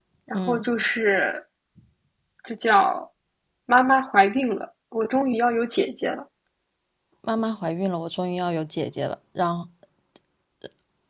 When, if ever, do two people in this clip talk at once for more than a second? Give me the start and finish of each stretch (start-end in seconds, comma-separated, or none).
none